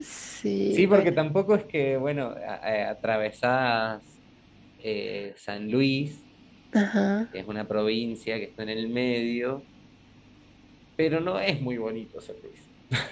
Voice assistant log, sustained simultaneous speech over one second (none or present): none